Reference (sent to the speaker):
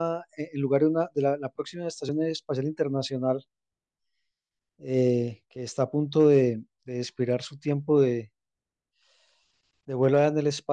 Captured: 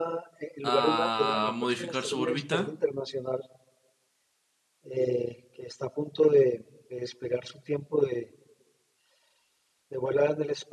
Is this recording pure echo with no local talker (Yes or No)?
No